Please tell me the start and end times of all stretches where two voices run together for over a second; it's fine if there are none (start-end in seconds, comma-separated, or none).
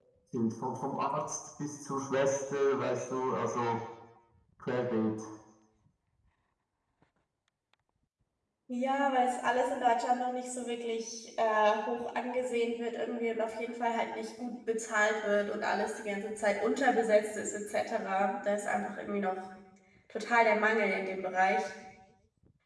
none